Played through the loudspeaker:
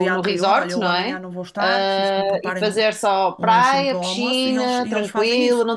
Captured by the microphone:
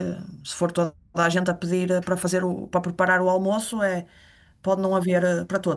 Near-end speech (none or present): present